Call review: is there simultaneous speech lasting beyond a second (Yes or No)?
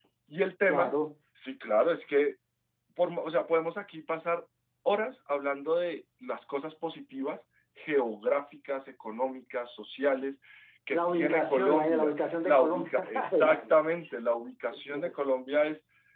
Yes